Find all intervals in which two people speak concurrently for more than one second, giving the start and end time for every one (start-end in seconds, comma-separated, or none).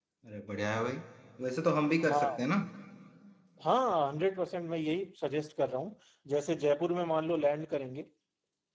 none